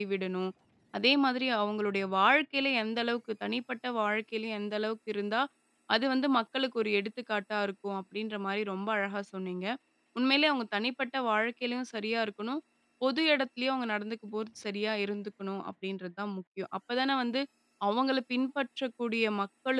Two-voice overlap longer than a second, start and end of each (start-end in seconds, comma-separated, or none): none